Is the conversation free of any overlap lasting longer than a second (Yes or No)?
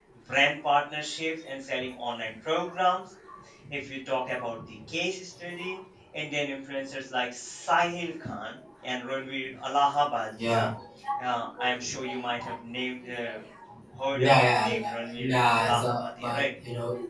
No